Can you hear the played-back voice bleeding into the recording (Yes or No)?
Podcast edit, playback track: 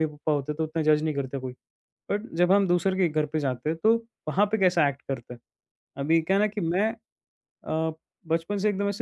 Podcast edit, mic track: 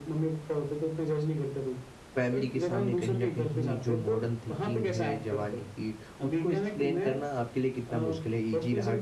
Yes